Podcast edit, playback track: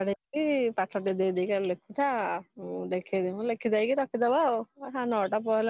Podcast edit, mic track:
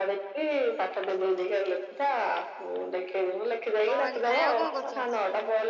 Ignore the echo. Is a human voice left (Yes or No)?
Yes